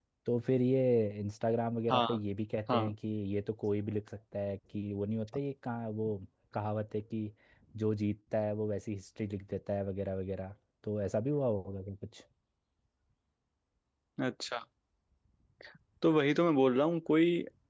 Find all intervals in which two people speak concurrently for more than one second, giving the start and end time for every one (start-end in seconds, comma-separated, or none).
none